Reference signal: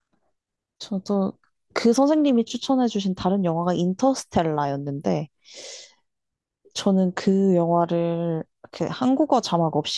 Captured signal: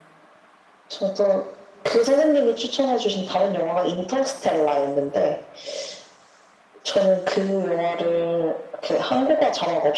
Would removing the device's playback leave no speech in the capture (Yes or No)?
Yes